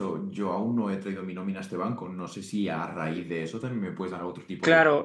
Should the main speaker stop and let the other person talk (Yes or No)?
Yes